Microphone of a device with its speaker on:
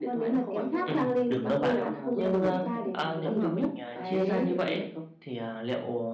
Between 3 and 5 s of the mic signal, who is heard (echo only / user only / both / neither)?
both